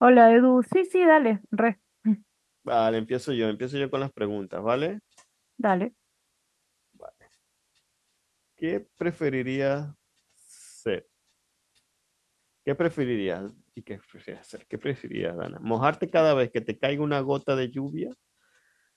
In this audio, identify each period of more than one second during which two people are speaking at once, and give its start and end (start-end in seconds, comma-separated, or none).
none